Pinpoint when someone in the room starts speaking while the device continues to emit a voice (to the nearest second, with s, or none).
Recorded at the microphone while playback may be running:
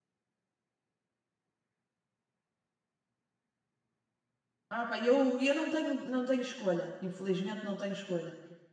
5 s